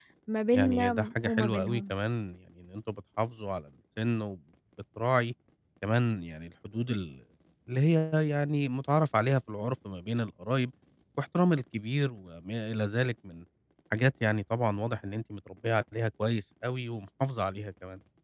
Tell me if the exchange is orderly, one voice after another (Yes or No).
No